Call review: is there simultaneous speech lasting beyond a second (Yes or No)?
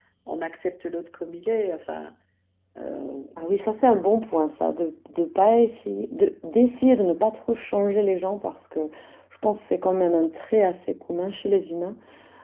No